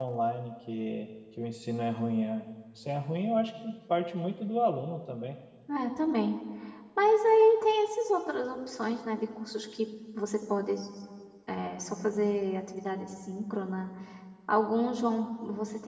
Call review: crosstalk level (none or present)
none